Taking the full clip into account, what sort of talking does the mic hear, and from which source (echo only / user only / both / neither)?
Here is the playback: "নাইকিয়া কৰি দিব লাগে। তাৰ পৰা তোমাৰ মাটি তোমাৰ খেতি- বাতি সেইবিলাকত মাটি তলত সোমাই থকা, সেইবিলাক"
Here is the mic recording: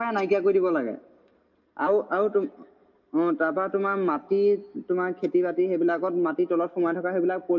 echo only